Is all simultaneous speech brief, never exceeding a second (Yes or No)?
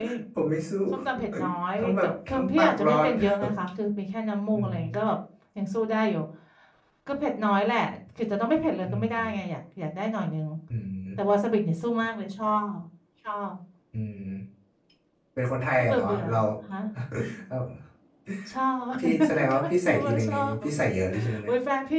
No